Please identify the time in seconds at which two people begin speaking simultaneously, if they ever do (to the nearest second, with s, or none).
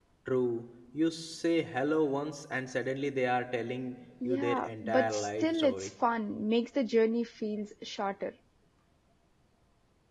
4 s